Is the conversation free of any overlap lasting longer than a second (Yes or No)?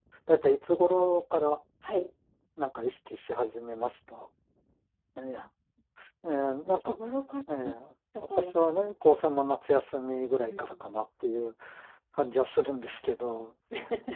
Yes